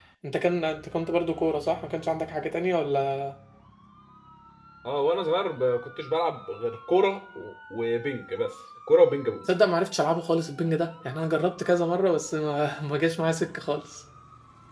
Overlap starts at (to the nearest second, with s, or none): none